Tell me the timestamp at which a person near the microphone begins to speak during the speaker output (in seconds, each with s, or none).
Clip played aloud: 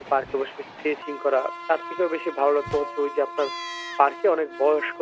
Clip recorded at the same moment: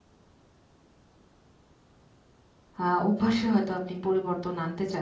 2.8 s